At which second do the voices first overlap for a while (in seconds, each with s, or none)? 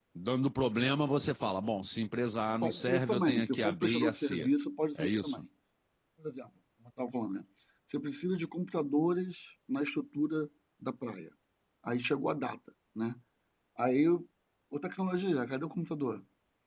2.6 s